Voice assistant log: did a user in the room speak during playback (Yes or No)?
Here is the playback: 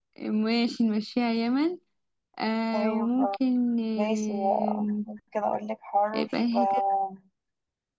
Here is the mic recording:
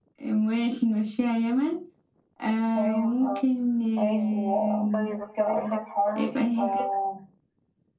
Yes